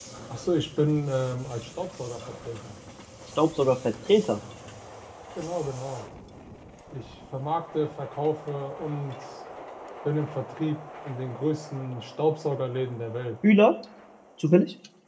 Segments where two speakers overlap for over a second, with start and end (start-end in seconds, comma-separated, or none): none